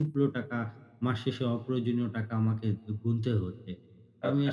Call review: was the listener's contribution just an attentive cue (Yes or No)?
Yes